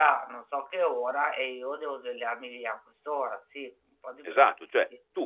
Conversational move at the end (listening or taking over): taking over